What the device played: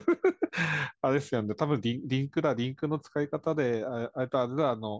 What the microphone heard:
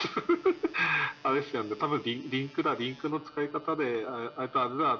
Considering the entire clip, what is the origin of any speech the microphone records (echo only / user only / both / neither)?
echo only